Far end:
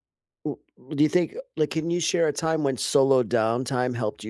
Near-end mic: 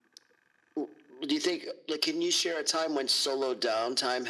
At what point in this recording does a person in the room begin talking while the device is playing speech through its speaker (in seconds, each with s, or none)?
none